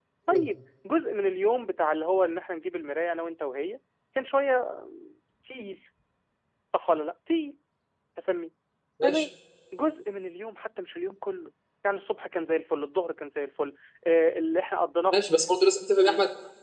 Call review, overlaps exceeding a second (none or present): none